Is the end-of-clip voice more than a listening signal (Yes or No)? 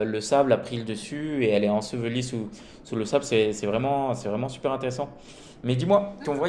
No